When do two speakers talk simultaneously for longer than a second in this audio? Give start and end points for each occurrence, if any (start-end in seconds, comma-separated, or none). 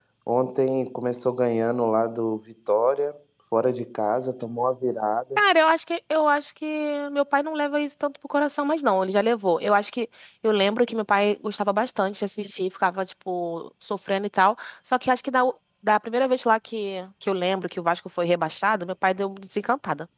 none